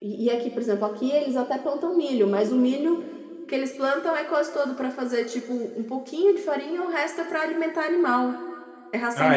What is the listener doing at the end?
taking over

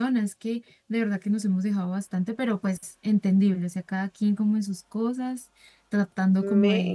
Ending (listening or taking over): listening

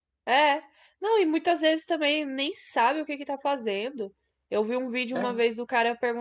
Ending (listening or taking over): listening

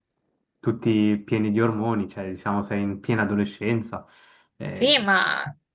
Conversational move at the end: taking over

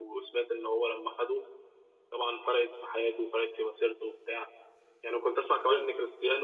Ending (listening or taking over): listening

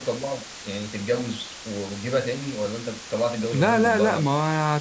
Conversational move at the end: taking over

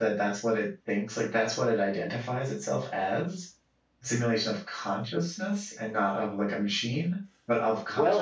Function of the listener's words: taking over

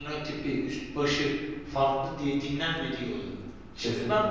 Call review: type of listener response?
listening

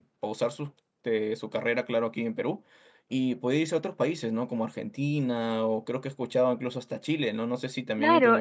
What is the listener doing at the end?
taking over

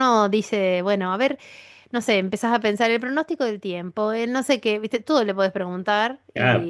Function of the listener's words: taking over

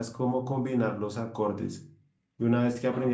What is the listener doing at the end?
listening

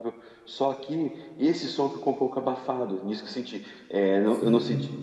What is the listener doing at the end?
listening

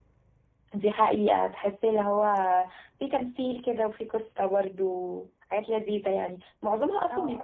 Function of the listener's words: listening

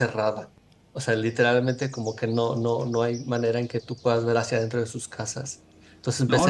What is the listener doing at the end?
taking over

